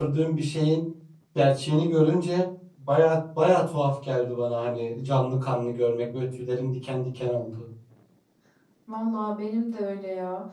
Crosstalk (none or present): none